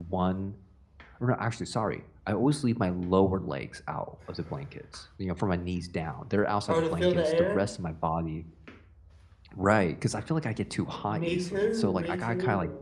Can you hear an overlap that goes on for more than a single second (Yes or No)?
Yes